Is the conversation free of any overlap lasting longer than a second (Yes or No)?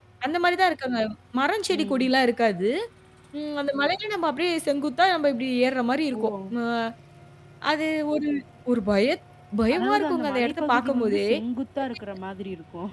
No